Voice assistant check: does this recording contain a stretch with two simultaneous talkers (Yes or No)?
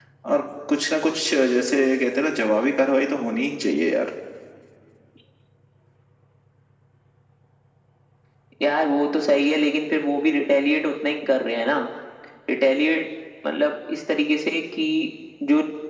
No